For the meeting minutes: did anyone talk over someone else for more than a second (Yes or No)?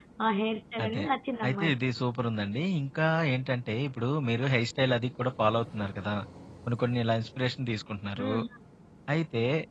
No